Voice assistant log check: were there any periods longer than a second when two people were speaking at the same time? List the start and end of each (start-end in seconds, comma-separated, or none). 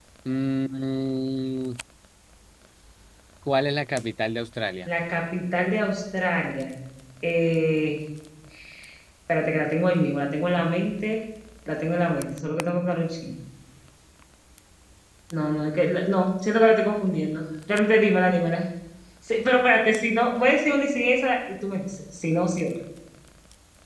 none